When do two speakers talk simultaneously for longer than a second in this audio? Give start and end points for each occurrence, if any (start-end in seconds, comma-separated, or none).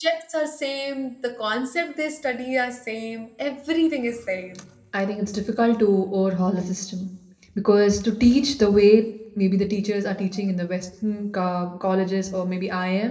none